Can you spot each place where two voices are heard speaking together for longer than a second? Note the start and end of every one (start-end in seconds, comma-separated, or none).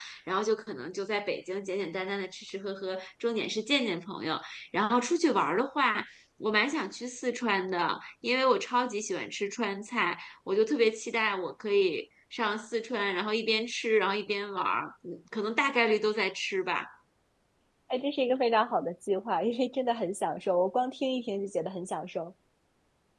none